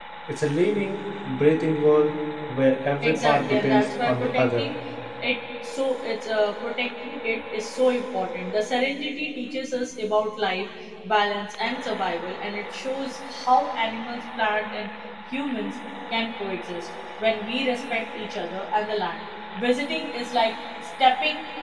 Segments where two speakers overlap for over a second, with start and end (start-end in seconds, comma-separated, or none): 3.1-4.7